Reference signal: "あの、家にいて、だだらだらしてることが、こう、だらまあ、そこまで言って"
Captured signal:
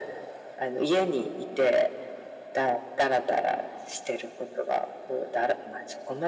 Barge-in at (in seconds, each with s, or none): none